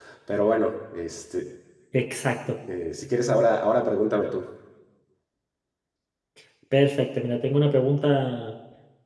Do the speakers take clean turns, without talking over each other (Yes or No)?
Yes